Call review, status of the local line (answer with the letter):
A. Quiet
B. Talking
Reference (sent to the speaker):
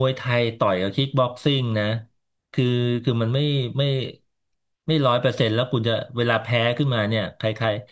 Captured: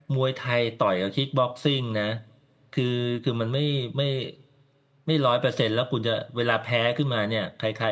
A